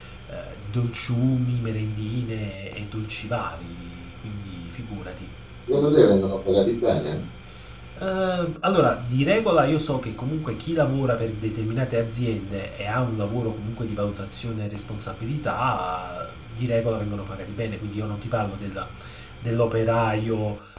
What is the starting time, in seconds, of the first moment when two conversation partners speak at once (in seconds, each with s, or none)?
none